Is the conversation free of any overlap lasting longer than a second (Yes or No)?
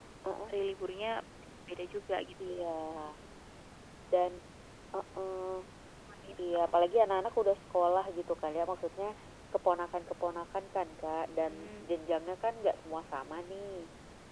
Yes